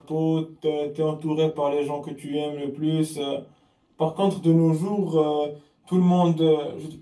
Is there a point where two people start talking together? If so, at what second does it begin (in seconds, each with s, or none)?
none